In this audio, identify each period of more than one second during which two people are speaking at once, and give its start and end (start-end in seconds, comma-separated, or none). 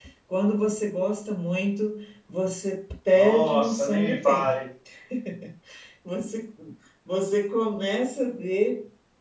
3.1-4.6